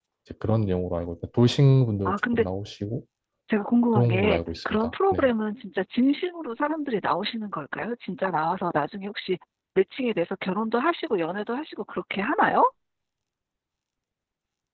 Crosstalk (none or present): present